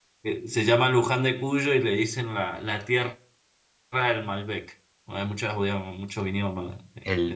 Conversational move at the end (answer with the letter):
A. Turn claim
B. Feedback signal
A